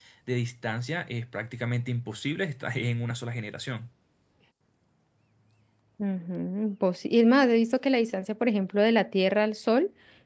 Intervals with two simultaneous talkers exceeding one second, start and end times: none

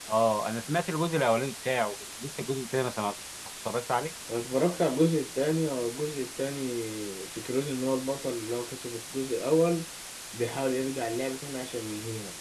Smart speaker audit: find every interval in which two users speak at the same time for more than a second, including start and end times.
none

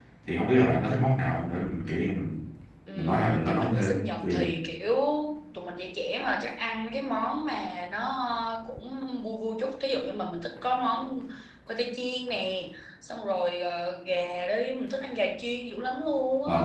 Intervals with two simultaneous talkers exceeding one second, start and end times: 3.0-4.5

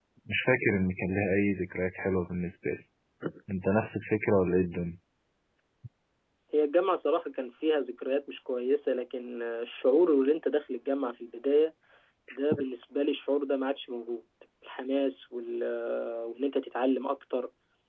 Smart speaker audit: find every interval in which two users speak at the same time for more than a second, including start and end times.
none

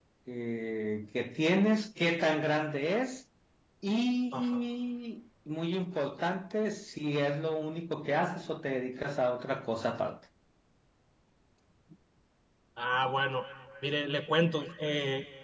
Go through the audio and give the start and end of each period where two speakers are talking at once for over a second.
none

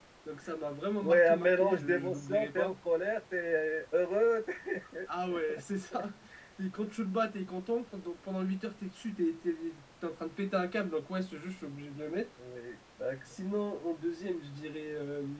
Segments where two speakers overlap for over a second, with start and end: 1.0-2.7

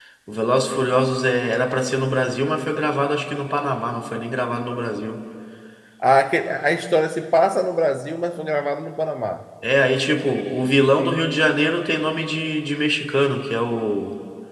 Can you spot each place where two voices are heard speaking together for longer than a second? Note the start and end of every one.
none

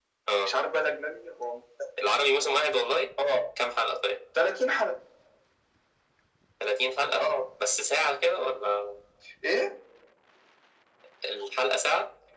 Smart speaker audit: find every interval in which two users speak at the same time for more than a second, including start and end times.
none

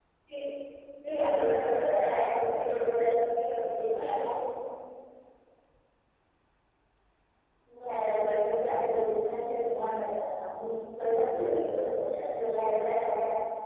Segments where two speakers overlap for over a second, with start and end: 1.2-3.0

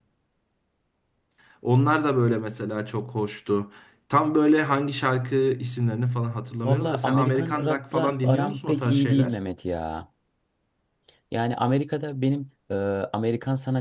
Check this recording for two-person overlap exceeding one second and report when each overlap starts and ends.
6.6-9.4

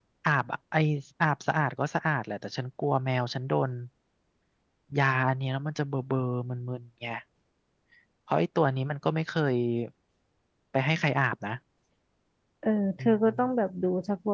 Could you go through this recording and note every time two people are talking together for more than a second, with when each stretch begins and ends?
none

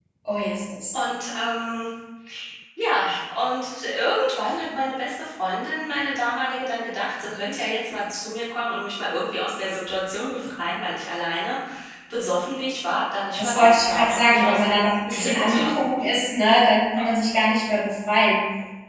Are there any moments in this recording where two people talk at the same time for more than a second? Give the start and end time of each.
13.4-15.7

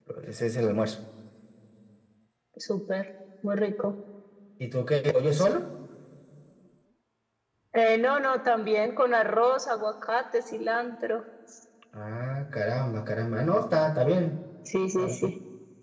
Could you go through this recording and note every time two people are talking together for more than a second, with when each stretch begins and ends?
none

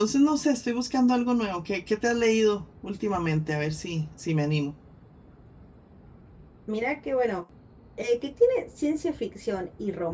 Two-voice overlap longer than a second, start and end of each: none

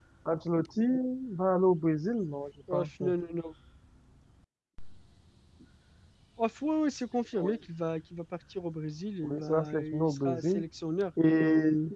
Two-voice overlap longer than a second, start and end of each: 9.2-10.6

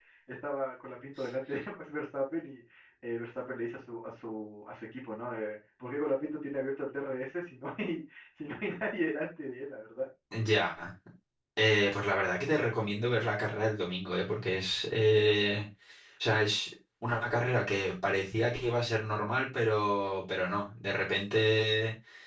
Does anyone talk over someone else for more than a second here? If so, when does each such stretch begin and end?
none

